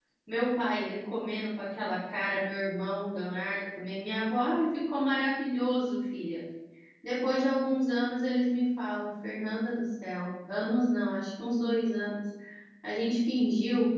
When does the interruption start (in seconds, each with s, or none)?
none